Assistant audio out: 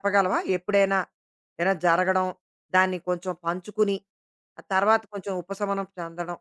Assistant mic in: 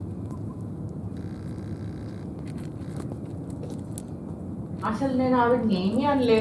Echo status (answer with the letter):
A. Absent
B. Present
A